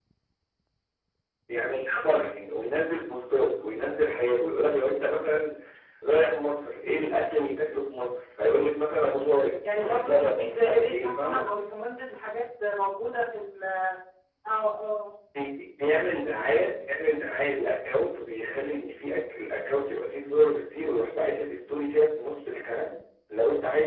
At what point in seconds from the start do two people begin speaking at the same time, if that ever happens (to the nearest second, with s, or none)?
10 s